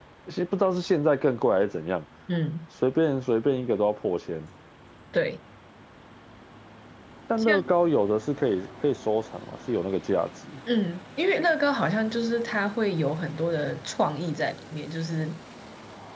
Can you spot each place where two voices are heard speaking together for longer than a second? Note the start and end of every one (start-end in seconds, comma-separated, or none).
none